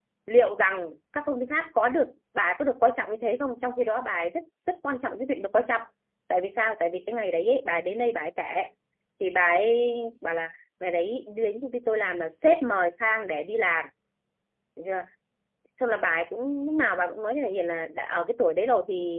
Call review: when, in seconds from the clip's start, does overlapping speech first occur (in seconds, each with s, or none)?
none